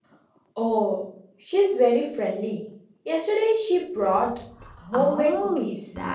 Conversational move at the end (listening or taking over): taking over